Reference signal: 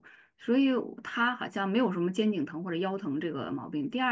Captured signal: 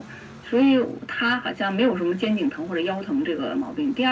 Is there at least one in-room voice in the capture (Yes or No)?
No